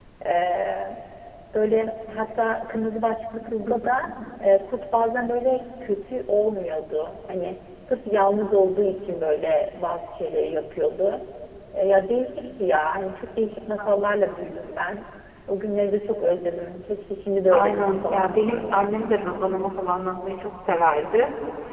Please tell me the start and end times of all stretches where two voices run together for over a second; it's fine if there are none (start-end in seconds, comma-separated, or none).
17.5-19.1